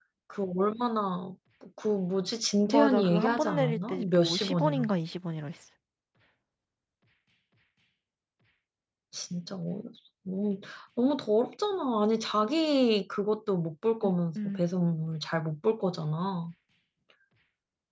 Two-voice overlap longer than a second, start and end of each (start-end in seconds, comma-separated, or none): 2.6-4.9